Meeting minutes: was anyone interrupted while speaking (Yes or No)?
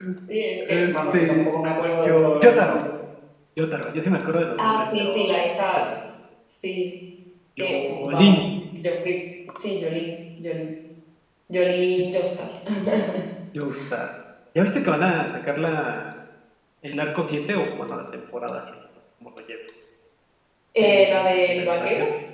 Yes